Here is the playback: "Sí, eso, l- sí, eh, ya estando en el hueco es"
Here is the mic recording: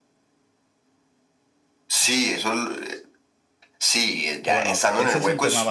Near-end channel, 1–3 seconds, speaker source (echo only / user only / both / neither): echo only